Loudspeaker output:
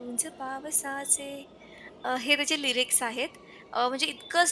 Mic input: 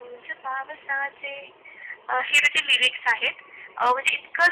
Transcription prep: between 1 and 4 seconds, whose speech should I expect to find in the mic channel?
echo only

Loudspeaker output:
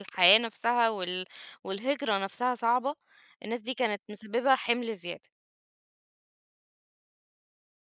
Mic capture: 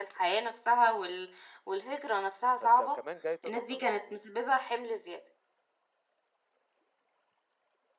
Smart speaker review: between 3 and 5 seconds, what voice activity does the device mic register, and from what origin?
both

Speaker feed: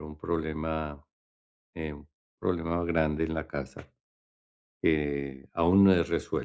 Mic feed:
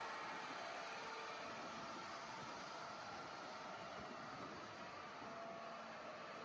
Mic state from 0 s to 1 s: neither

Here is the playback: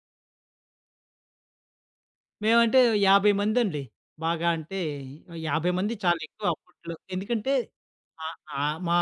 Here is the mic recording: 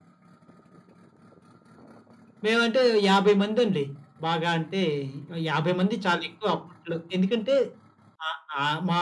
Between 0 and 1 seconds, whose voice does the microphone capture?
neither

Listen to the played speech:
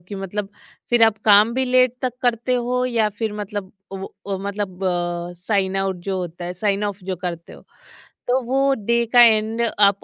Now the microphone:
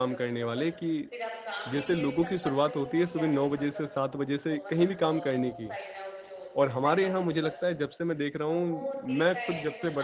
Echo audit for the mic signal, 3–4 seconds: both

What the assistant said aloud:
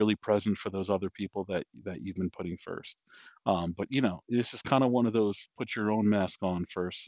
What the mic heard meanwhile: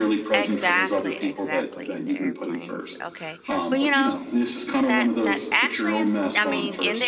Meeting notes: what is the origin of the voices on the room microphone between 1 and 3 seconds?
both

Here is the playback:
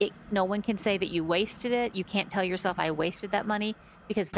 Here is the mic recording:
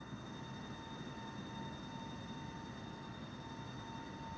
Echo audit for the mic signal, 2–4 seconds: neither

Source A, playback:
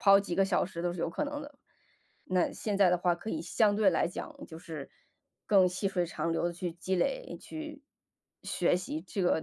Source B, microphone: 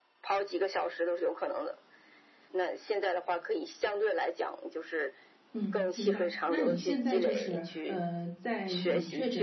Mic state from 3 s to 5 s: echo only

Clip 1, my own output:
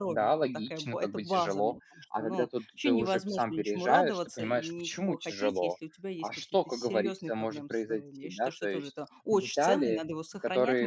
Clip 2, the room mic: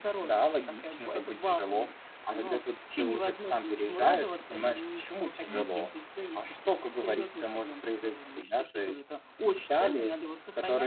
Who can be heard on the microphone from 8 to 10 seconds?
echo only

